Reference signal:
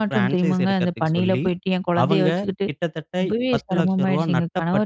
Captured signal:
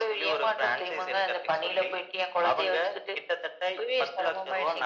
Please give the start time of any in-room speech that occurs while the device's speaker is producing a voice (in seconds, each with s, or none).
none